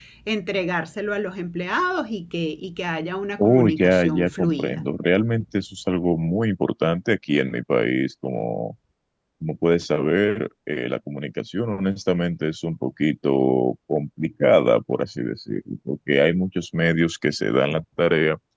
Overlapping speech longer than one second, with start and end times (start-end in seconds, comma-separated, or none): 3.4-4.9